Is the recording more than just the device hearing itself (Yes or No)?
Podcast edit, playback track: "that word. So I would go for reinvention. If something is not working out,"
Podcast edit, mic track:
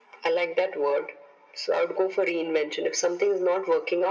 No